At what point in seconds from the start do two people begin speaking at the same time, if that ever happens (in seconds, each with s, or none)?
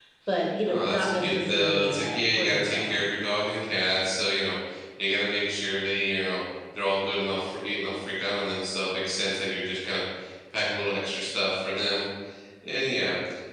0.6 s